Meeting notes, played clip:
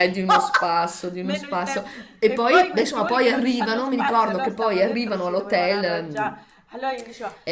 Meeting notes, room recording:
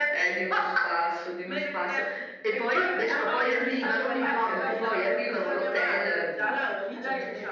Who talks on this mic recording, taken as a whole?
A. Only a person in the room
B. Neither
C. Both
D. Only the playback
C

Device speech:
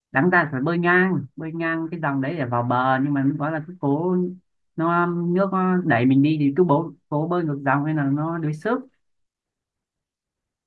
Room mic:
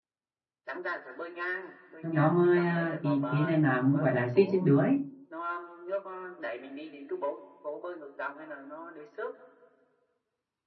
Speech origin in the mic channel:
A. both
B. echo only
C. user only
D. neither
A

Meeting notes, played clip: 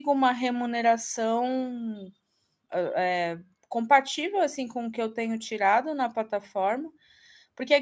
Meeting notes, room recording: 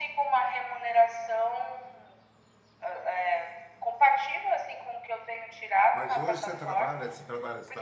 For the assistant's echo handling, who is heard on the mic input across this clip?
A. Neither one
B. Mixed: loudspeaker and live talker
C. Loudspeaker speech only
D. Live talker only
B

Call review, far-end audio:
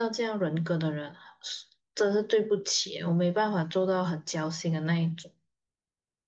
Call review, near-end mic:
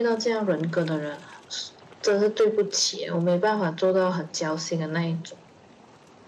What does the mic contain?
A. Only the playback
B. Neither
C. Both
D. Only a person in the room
A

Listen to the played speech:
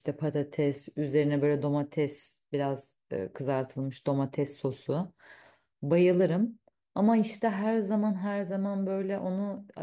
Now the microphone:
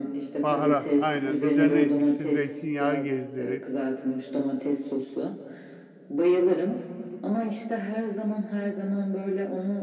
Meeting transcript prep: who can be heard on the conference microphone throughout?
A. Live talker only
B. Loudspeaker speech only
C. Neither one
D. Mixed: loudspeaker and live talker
D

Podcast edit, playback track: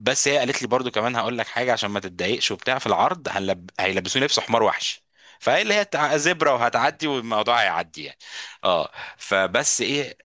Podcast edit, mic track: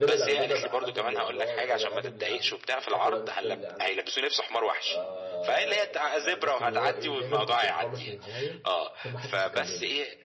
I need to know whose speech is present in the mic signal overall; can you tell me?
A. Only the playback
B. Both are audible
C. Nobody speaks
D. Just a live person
B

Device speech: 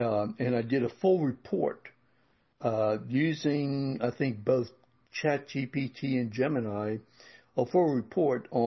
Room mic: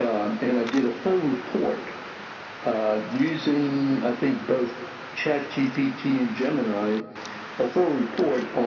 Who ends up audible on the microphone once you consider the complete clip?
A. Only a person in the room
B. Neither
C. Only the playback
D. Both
C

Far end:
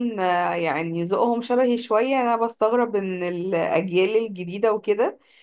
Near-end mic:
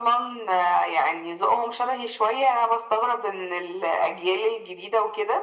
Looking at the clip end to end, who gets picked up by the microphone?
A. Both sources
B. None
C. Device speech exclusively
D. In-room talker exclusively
C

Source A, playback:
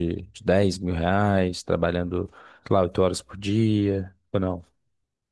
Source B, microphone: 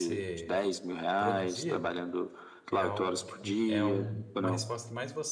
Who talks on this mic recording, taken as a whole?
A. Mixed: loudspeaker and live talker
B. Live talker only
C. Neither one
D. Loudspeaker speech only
A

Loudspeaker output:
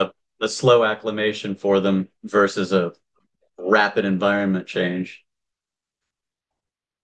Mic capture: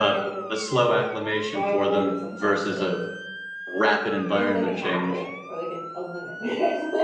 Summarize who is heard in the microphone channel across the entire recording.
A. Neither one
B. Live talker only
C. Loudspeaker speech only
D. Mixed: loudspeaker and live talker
D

